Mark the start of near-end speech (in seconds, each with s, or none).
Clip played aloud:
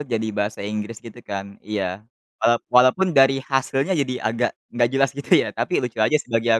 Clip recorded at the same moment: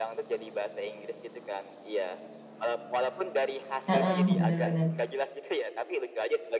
3.9 s